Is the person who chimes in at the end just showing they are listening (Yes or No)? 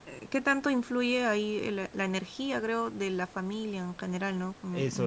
No